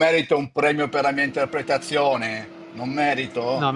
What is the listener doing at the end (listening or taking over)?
taking over